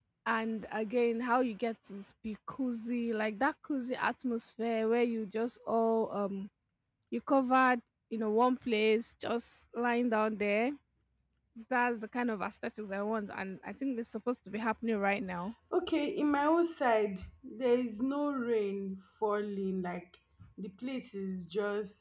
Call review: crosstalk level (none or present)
none